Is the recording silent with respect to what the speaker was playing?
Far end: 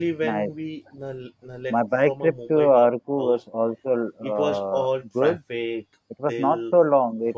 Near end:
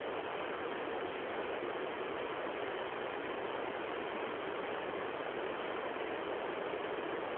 Yes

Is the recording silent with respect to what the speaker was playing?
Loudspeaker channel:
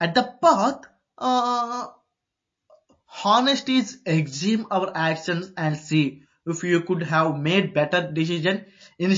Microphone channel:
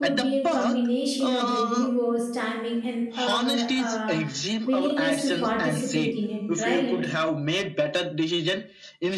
No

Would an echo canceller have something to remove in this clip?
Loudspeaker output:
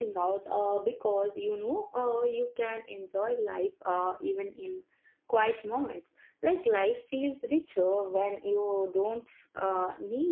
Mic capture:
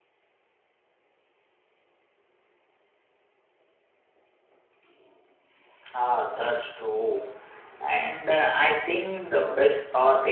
No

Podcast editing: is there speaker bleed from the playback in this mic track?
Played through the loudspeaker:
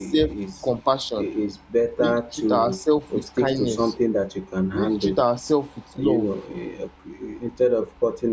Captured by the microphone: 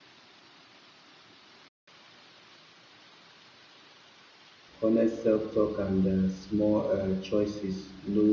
No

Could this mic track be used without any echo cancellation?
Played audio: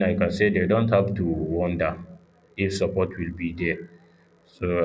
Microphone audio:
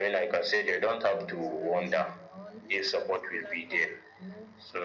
No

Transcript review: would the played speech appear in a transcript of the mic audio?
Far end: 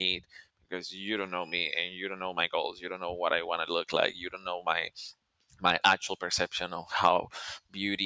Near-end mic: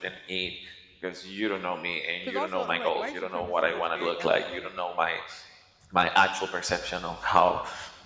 Yes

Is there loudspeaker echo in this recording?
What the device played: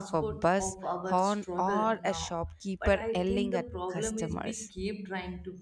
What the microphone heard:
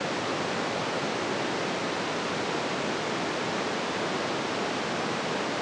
No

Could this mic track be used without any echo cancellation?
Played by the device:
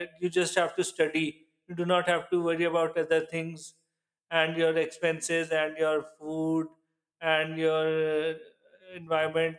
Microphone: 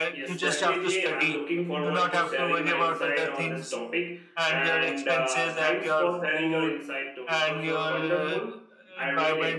No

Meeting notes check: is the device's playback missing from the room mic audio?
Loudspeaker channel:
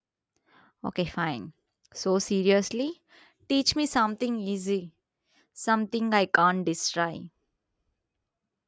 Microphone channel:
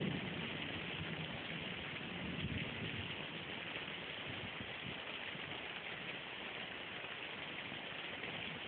Yes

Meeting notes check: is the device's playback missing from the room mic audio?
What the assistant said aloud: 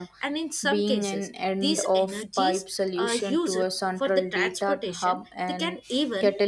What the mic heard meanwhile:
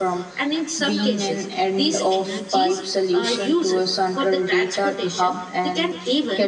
No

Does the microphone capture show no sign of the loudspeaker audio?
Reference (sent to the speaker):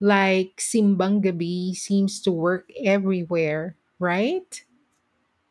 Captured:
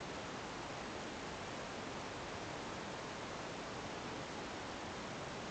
Yes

